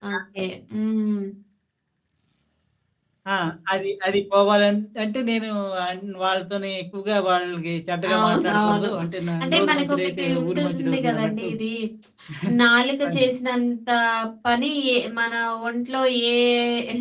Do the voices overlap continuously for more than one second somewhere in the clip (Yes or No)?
Yes